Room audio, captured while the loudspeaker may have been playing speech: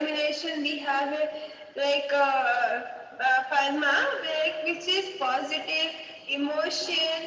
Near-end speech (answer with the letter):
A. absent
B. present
A